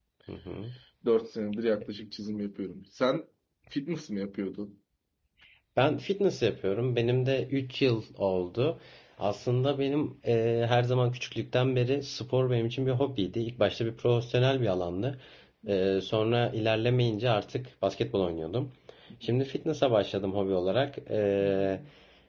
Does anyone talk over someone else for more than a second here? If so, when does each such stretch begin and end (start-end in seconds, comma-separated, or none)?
none